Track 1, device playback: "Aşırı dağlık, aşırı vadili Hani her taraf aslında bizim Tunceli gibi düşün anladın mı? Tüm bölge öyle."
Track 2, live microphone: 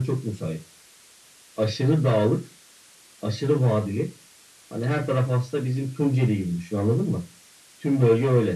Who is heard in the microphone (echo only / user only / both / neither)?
echo only